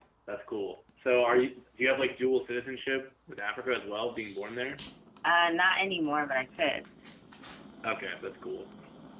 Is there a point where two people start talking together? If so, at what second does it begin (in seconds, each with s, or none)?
none